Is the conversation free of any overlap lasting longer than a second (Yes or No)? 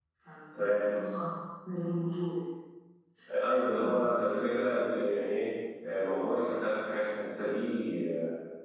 Yes